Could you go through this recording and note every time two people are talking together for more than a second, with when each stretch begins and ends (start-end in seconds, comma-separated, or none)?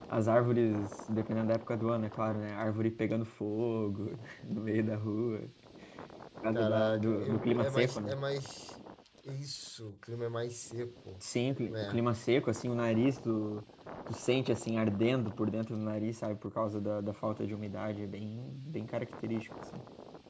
6.5-8.2